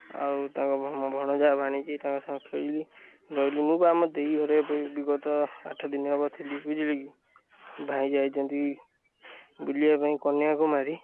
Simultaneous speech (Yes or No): No